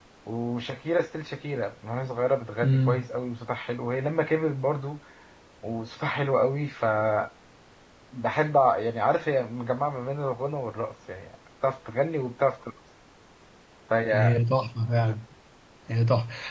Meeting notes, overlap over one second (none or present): none